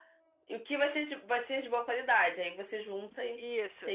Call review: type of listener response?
taking over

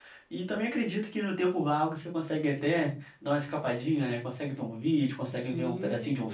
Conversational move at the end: taking over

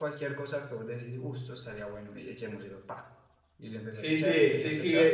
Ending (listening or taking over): taking over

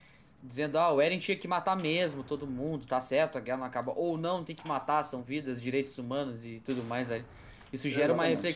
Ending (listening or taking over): listening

